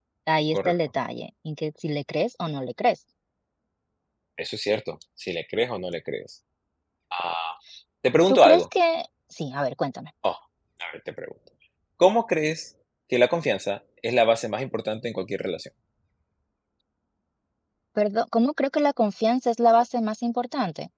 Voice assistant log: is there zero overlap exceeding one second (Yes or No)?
Yes